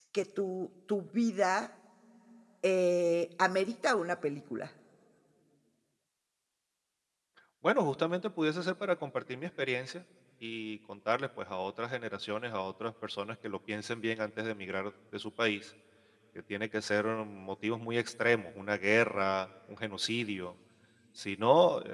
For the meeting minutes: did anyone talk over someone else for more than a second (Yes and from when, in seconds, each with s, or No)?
No